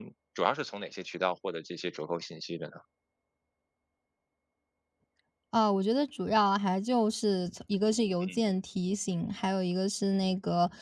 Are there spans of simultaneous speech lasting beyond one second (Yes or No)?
No